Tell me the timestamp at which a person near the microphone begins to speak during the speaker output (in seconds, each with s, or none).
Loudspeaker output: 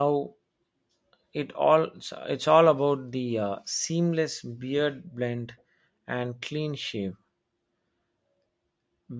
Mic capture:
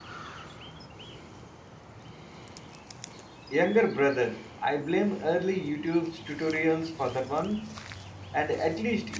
3.5 s